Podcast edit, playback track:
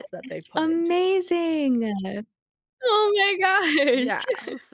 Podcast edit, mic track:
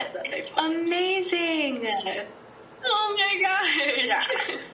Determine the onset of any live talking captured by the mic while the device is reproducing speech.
none

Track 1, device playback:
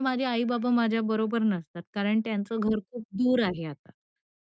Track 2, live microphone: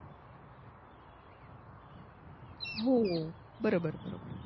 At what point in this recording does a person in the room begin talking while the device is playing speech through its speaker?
2.8 s

